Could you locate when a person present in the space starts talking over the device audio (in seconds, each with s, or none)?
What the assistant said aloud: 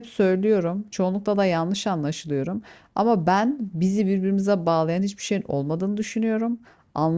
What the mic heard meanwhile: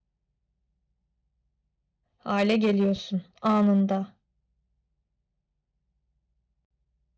2.2 s